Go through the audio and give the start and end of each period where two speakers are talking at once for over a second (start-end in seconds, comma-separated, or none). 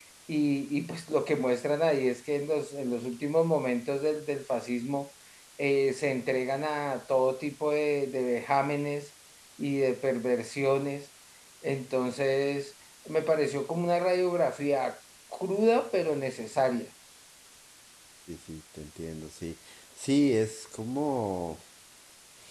none